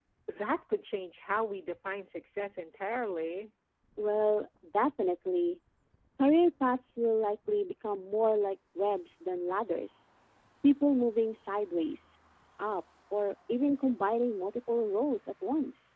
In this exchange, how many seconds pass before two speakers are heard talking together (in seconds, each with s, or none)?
none